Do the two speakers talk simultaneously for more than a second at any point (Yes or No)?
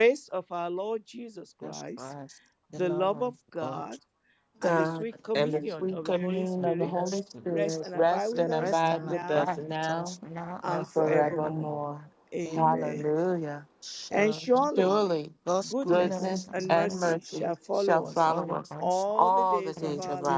Yes